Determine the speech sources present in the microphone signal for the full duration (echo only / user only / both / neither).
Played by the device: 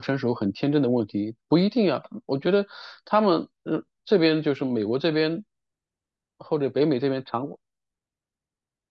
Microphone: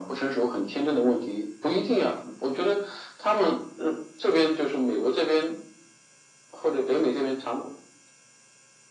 echo only